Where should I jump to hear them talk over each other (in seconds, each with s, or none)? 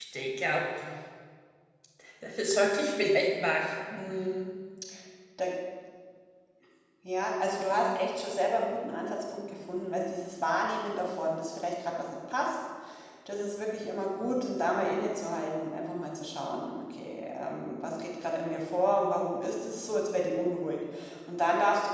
none